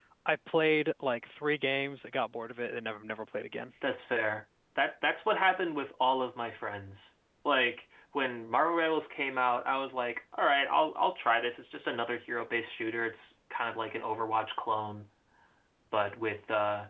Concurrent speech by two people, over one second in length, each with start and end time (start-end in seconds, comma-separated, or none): none